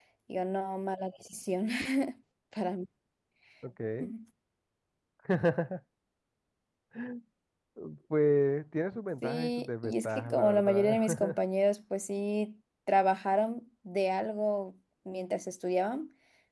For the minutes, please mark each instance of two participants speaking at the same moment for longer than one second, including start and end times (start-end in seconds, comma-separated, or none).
9.2-11.3